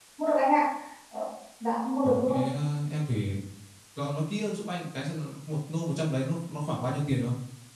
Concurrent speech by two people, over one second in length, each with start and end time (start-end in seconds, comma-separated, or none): none